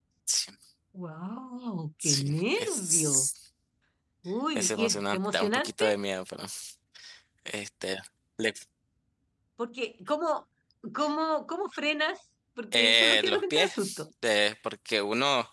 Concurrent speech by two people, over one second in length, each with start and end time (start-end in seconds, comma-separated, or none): 2.0-3.3, 4.5-5.8, 12.7-14.0